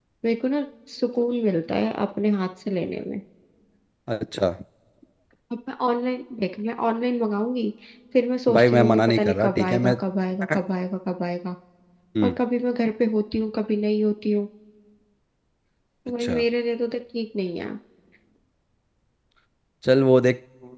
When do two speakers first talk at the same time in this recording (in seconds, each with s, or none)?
8.5 s